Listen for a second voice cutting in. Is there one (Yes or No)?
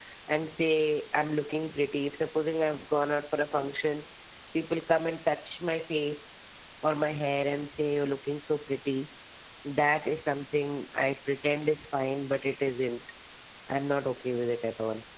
No